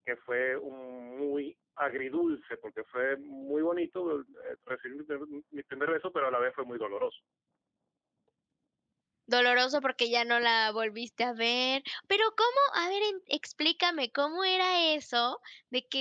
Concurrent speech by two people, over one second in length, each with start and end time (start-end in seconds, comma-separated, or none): none